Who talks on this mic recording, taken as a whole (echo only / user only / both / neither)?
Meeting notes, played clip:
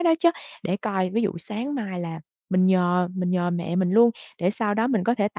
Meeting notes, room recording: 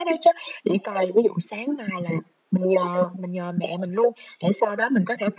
echo only